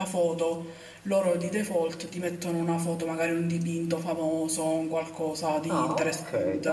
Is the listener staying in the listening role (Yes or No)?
No